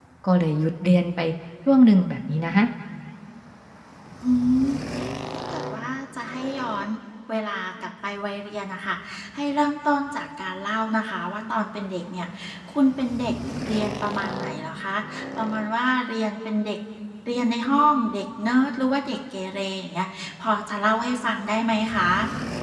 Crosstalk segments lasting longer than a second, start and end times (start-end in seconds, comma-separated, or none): none